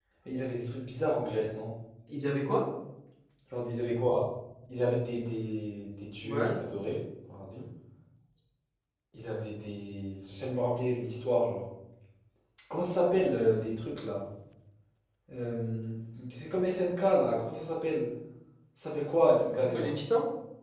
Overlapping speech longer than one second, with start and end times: none

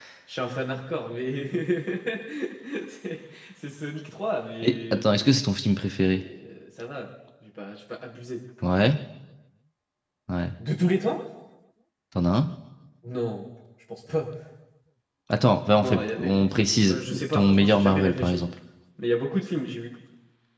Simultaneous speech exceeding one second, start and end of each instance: 15.8-18.4

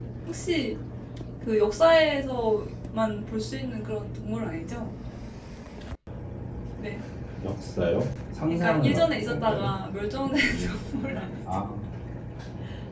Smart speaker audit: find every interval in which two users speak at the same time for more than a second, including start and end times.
8.5-9.8

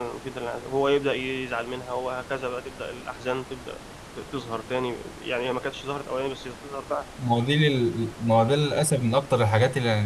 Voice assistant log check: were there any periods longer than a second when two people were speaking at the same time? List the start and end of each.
none

